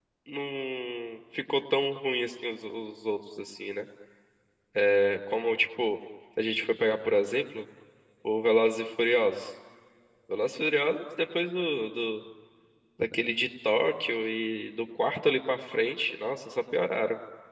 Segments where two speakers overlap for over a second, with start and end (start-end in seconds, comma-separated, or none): none